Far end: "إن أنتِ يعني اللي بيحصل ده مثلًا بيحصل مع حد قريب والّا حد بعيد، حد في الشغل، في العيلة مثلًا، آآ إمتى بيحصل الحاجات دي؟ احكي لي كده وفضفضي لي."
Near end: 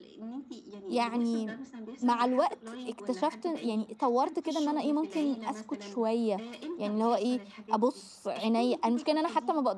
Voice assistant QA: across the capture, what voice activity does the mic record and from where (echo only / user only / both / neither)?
both